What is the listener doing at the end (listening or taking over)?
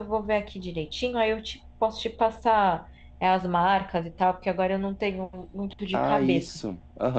taking over